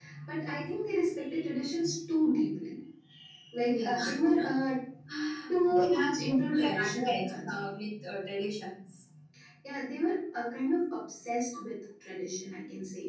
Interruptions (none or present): present